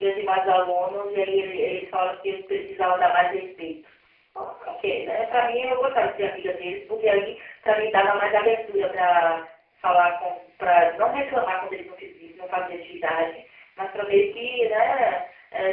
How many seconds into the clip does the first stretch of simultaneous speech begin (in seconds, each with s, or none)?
none